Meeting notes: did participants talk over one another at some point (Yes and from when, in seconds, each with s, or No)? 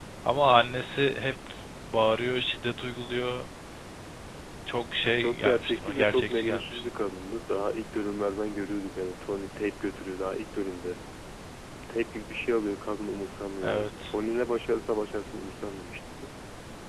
Yes, from 5.2 s